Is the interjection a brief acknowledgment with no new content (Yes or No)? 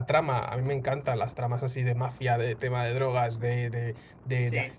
Yes